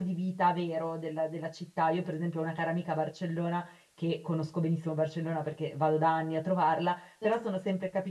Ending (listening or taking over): listening